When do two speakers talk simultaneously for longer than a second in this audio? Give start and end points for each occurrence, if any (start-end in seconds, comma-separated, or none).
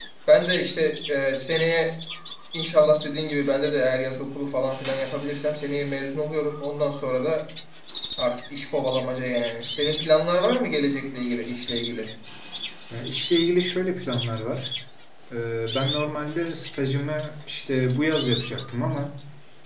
none